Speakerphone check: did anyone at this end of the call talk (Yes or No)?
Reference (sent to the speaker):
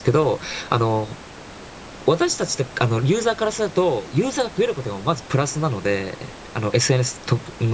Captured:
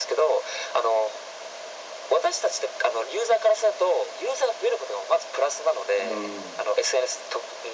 Yes